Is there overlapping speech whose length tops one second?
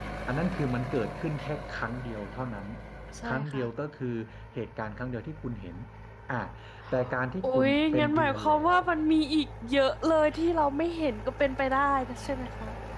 Yes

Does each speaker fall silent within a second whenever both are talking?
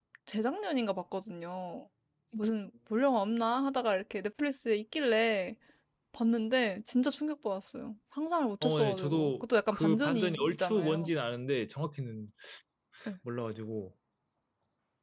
No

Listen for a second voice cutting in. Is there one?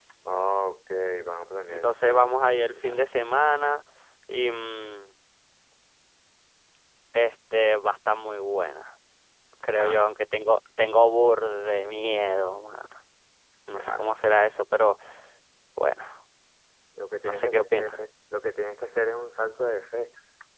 Yes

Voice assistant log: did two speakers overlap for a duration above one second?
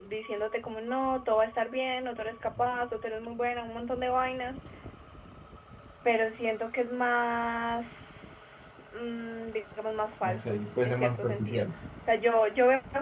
Yes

